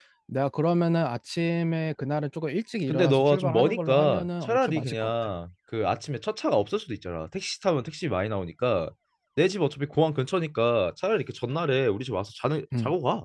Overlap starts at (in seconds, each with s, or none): 2.9 s